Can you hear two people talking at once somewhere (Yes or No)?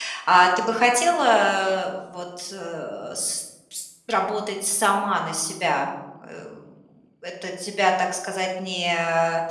No